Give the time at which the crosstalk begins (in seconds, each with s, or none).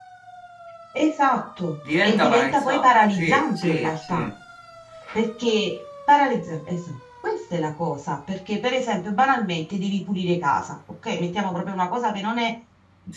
2.0 s